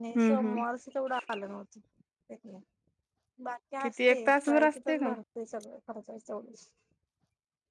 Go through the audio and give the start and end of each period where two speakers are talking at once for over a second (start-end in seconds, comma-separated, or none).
3.8-5.1